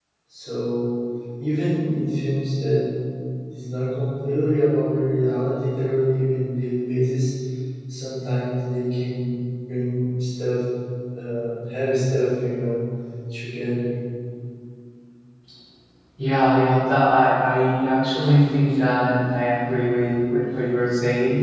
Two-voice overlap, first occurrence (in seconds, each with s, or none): none